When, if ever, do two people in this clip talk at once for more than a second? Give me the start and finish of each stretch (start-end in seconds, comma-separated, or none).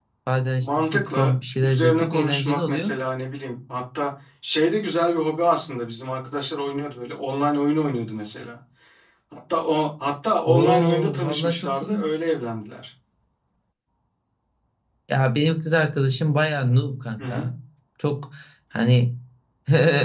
0.6-2.9, 10.5-12.1